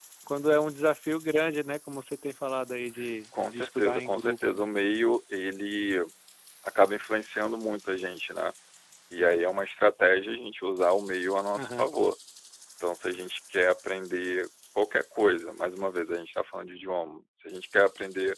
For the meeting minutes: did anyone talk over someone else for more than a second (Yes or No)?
Yes